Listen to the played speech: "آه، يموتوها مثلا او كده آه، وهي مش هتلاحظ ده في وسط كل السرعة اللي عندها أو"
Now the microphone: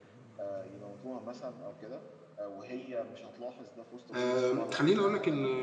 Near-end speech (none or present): present